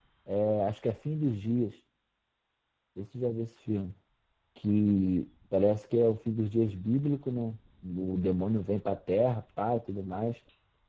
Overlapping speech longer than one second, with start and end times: none

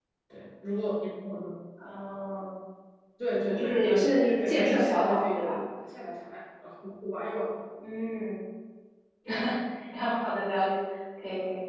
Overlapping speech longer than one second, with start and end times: 3.5-5.6

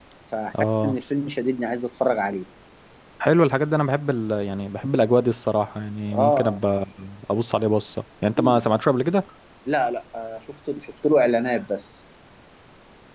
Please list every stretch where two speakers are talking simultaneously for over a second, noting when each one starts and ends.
none

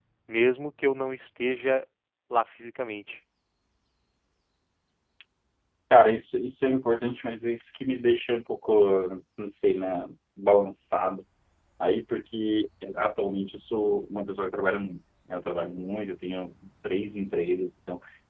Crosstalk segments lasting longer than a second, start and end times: none

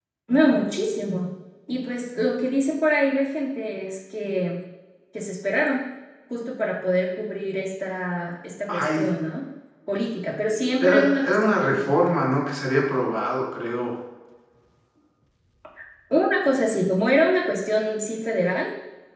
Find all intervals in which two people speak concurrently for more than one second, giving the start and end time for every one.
10.8-12.2

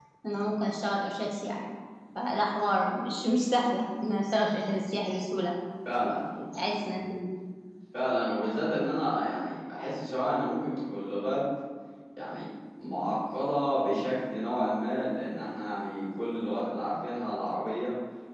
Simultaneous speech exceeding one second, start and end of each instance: none

